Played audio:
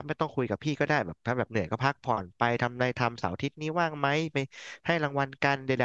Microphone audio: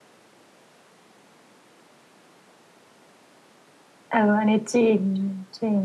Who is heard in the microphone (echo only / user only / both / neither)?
user only